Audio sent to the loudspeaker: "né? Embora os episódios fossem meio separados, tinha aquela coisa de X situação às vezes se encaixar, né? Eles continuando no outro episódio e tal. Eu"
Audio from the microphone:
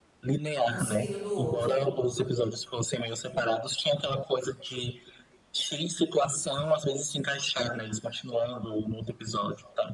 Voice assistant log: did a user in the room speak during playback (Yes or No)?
Yes